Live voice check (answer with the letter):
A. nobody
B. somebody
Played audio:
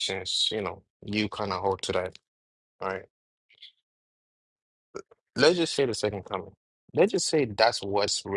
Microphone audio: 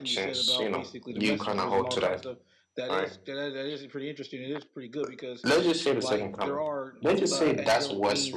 B